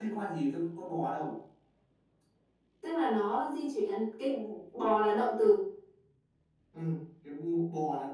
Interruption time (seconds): none

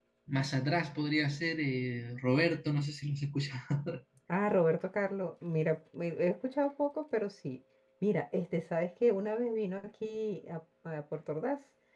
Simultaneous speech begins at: none

